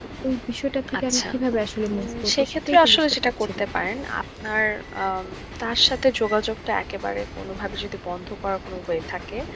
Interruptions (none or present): present